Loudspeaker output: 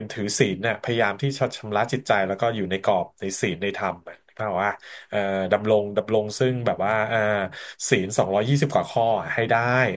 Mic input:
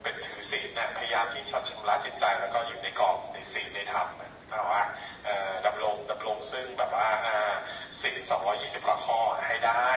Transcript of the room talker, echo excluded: none

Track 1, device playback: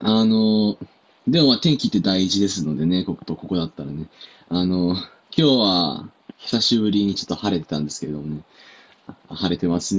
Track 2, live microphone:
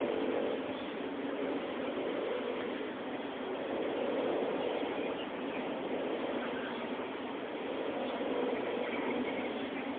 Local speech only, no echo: none

